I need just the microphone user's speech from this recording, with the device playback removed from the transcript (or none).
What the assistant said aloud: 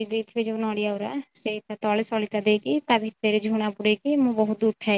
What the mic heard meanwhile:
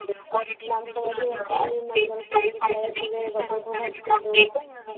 ଦାନ୍ତ କାଠି ଘଷନ୍ତି ମା ତାଙ୍କର ସେମିତି ଥାଏ ସେ ତାଙ୍କୁ ଘଷେଇ ଦଉ